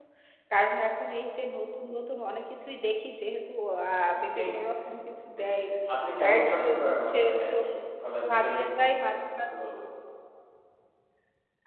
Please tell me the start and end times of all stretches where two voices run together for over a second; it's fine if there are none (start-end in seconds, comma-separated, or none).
6.2-7.6